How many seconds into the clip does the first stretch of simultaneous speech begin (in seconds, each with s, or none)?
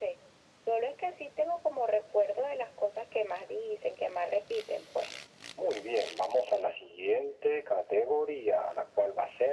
none